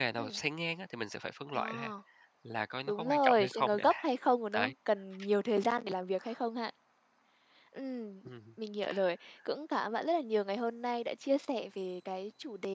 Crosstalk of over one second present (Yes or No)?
Yes